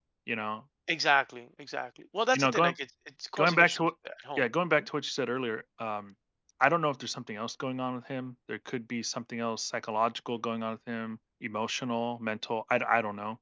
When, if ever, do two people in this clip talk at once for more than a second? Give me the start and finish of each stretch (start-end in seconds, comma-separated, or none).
none